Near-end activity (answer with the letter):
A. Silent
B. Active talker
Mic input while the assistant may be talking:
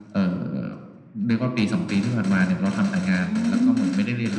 B